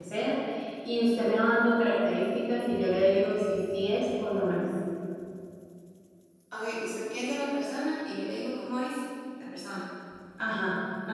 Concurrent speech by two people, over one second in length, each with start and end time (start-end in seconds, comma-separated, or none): none